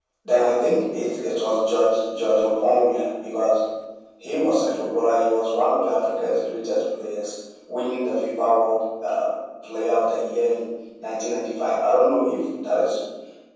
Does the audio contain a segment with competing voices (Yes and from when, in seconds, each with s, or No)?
No